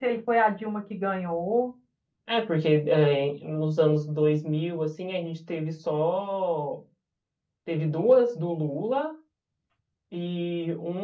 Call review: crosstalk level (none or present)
none